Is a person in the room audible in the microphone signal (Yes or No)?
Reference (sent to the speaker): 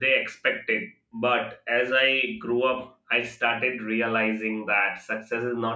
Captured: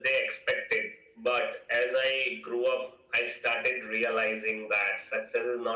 No